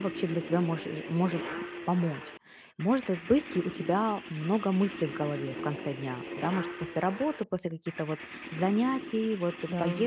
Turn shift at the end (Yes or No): No